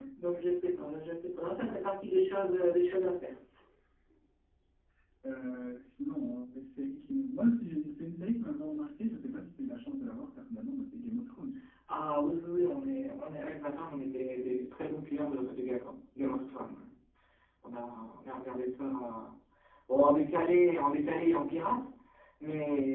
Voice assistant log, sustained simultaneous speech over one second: none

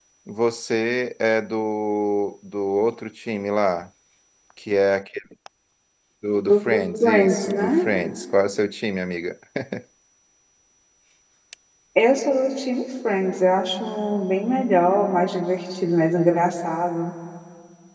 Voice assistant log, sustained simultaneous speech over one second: present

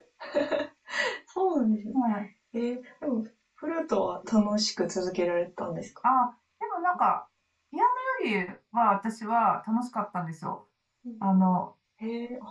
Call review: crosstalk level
none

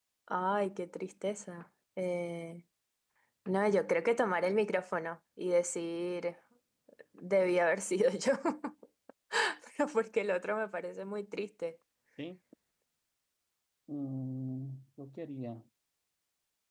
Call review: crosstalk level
none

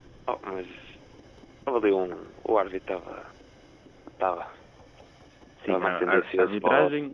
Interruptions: present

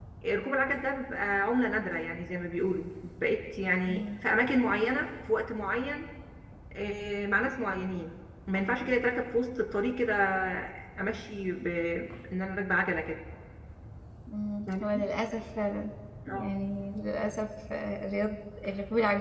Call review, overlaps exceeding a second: none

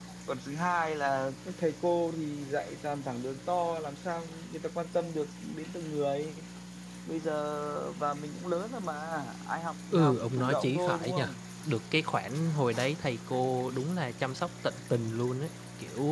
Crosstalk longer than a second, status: present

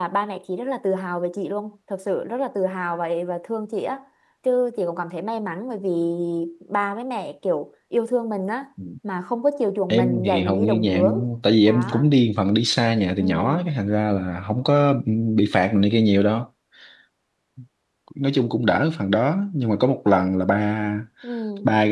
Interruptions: present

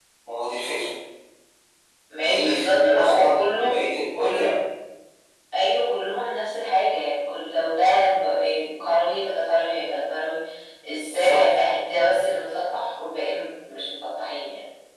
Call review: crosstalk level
present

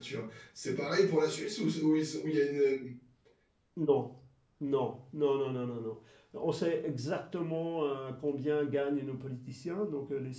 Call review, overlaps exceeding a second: none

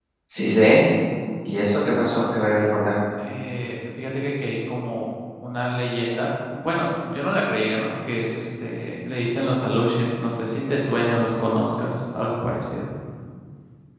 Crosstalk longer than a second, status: none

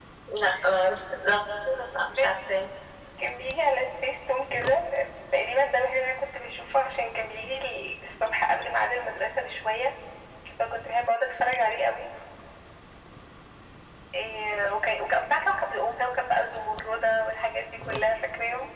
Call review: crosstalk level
none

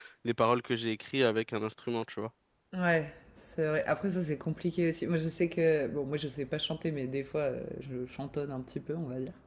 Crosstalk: none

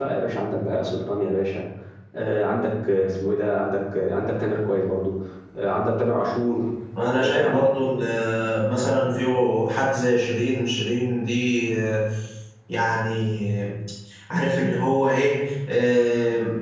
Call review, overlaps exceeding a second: none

